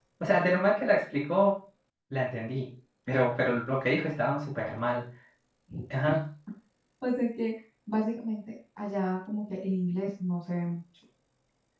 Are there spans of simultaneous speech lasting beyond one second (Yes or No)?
No